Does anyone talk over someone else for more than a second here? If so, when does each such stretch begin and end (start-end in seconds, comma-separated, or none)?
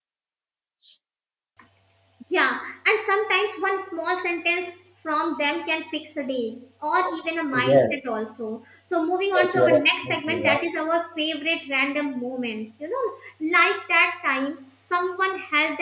9.3-10.7